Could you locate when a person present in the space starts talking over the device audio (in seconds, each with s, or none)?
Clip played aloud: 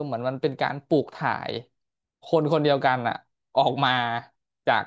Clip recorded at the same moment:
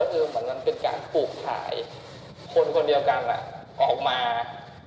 none